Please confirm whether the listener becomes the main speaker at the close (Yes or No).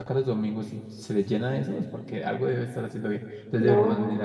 No